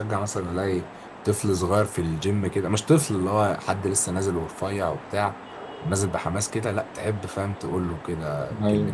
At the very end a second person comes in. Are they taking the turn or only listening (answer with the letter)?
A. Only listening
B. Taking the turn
A